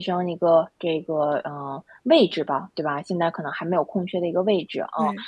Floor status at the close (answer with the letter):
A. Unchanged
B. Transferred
A